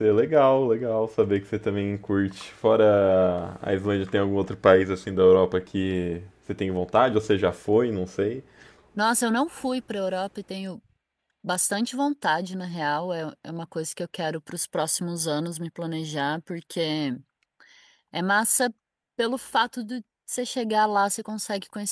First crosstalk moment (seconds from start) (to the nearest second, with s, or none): none